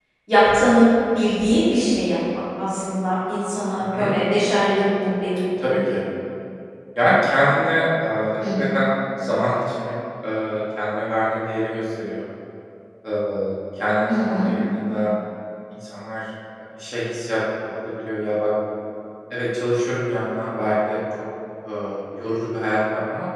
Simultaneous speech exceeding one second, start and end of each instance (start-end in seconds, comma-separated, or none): none